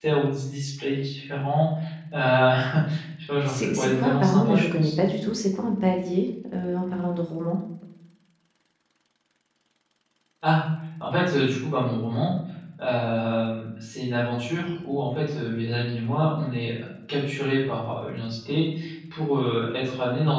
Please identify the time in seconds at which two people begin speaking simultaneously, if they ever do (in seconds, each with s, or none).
3.5 s